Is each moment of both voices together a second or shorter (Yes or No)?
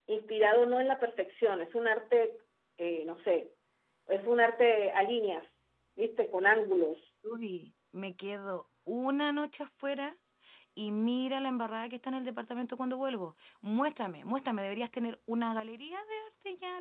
Yes